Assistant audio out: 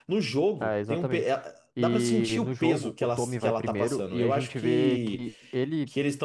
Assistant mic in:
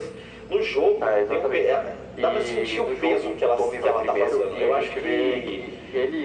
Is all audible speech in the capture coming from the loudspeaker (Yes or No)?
Yes